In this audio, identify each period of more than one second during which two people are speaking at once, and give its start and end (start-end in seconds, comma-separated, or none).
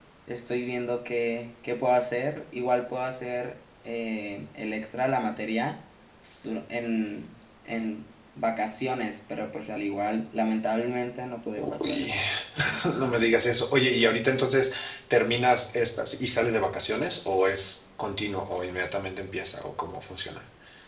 none